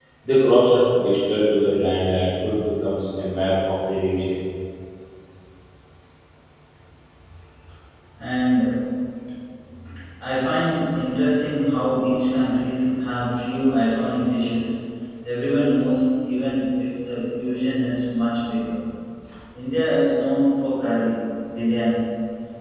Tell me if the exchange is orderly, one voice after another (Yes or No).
Yes